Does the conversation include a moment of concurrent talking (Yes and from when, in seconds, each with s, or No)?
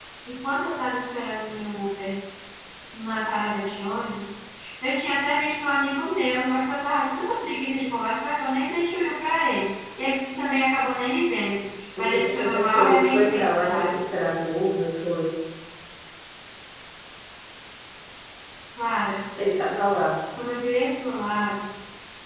Yes, from 12.0 s